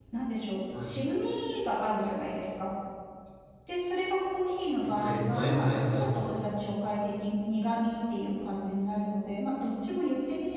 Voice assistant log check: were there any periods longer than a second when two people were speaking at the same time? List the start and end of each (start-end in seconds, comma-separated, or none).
4.8-6.1